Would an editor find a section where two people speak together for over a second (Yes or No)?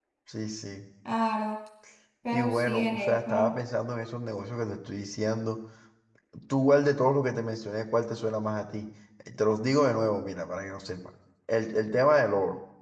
Yes